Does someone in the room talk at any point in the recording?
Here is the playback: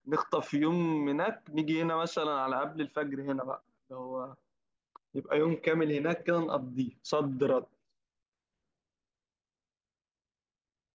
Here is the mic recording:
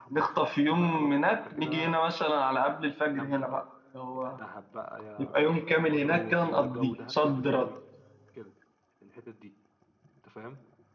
Yes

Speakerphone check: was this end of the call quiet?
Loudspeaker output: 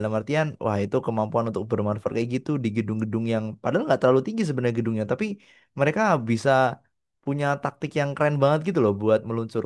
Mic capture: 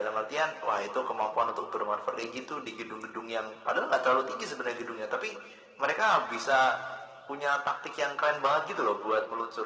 Yes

